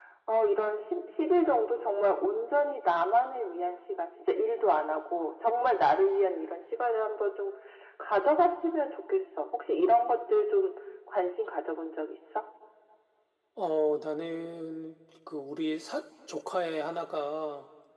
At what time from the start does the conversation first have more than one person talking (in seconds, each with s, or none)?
none